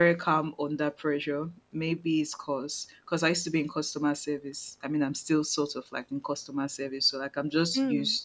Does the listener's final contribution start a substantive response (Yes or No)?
No